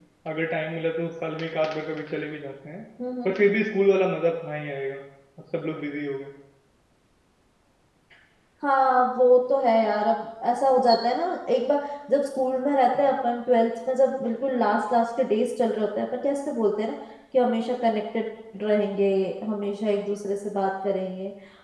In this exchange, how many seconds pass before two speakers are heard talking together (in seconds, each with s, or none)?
none